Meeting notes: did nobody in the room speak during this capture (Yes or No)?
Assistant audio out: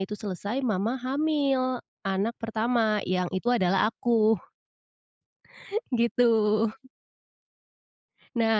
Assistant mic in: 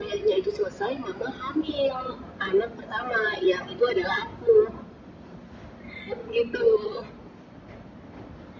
Yes